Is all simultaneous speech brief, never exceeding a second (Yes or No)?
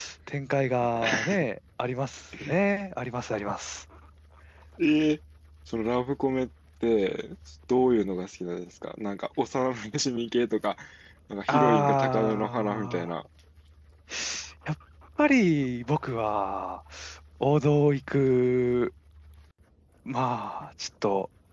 No